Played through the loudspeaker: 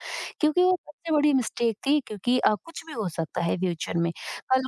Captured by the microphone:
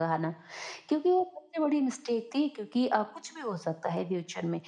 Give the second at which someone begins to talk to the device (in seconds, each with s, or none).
none